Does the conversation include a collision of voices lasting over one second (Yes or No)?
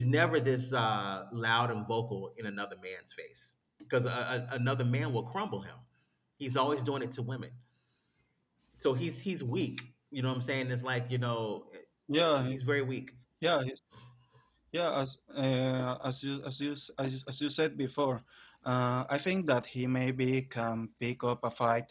No